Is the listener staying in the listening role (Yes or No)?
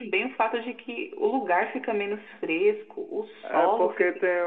No